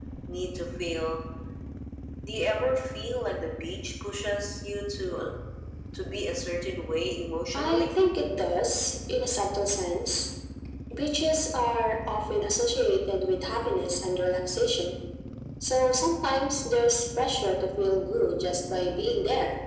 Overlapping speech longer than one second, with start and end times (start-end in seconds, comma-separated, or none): none